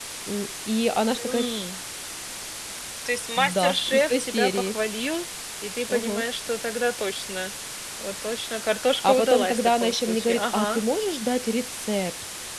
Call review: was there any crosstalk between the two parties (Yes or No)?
Yes